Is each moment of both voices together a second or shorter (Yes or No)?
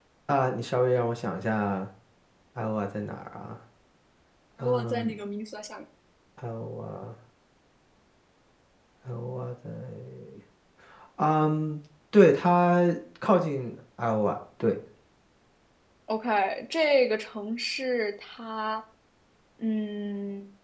Yes